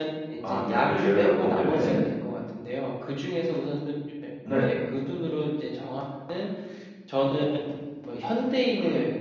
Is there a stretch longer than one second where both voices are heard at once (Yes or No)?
Yes